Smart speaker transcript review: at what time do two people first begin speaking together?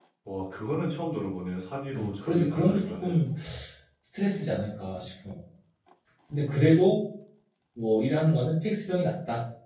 1.9 s

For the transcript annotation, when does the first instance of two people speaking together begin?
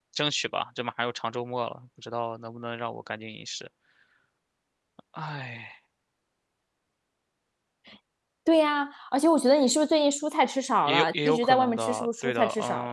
10.8 s

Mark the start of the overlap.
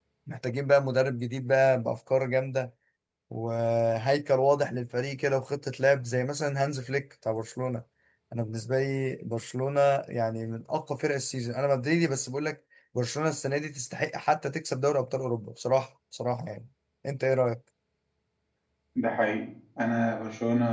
none

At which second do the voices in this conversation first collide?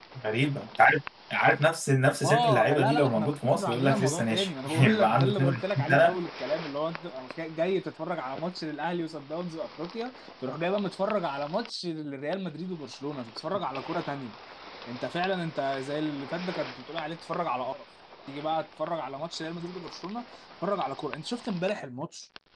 2.2 s

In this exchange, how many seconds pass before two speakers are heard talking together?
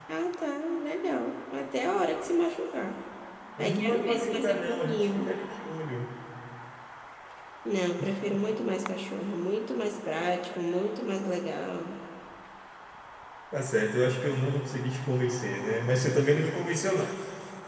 3.6 s

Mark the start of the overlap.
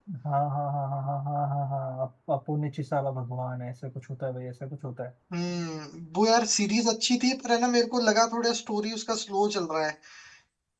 none

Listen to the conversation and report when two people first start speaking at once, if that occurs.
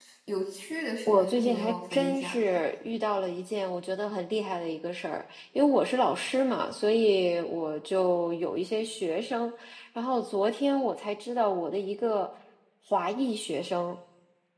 1.1 s

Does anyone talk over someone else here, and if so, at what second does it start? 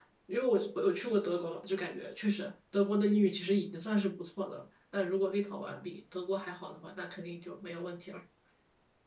none

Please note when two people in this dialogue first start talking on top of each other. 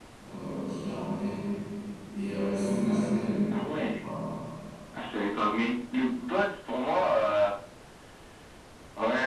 none

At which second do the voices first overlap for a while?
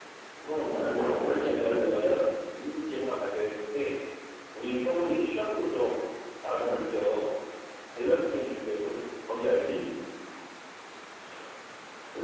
0.9 s

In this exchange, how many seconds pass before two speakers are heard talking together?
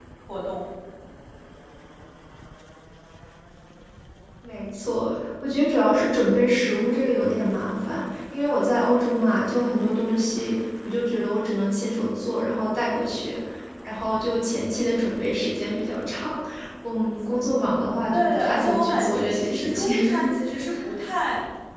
18.1 s

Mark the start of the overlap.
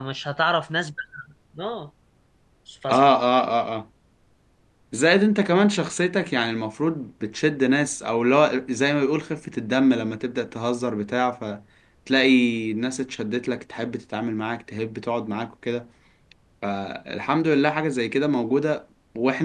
none

